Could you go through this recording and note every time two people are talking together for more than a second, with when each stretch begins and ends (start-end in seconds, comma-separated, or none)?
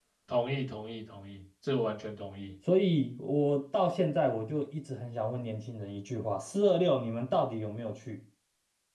none